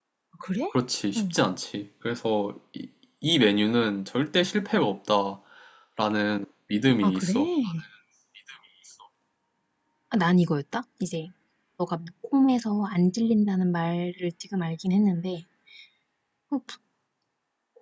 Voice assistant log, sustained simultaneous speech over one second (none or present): none